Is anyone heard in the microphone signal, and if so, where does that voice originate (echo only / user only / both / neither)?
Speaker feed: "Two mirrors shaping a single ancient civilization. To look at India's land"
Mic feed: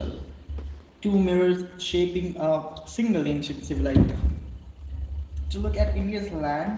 echo only